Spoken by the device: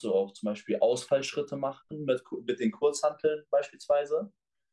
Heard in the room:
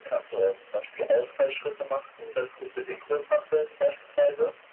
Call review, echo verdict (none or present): present